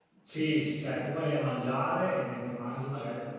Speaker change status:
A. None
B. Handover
A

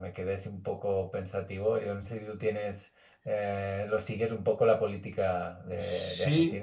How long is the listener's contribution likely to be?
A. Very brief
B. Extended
B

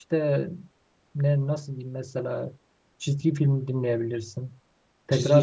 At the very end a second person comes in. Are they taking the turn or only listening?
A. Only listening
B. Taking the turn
A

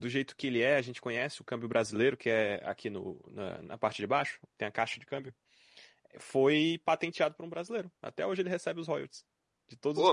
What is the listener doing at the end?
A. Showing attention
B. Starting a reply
A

